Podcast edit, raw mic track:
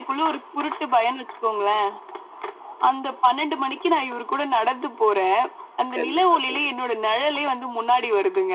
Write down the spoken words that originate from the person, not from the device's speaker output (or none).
கண்டிப்பா, கண்டிப்பா.